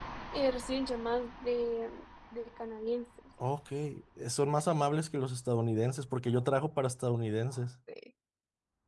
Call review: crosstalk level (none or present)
none